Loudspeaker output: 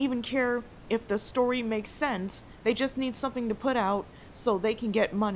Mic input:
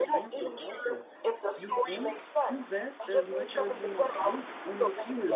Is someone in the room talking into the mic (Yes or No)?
Yes